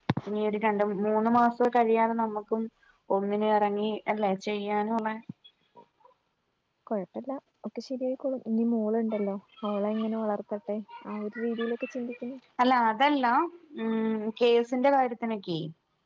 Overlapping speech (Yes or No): No